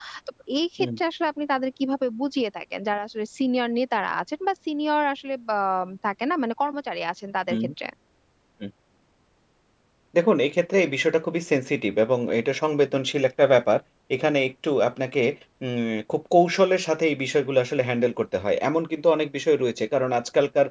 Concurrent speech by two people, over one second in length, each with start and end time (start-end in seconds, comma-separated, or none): none